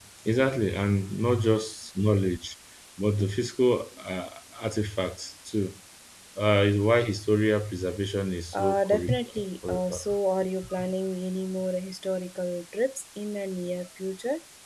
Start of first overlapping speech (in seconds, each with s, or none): 8.5 s